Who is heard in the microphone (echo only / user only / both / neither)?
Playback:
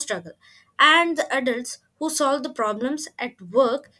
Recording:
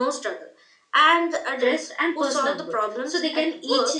both